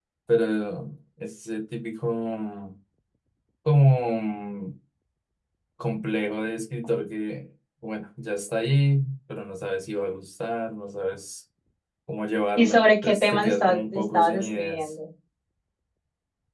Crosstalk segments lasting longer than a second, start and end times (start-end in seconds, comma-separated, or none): 12.6-14.9